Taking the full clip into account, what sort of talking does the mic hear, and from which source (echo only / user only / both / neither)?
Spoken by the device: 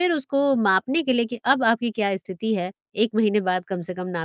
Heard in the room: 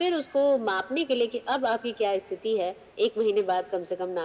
echo only